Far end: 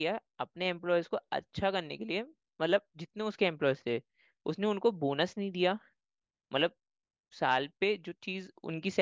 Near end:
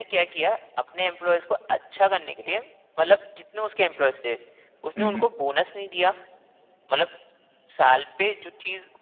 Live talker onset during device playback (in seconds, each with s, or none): 5.0 s